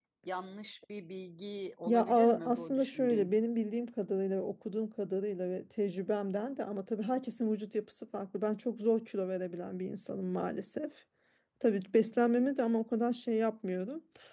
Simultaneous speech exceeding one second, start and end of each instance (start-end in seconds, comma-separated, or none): 1.9-3.3